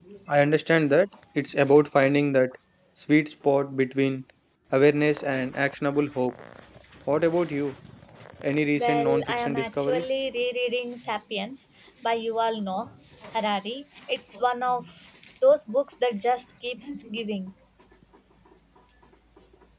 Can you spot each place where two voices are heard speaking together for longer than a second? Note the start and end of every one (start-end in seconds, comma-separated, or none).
8.8-10.0